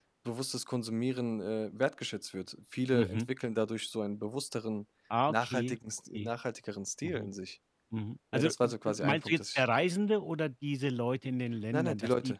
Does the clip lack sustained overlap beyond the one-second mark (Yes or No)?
No